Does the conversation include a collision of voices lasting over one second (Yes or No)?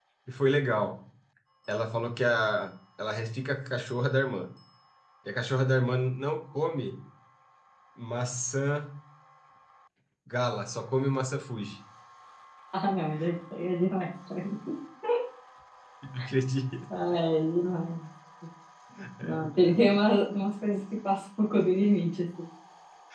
No